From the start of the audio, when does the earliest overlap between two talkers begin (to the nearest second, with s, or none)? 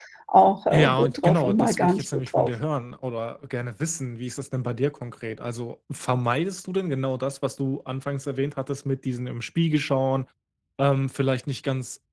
1 s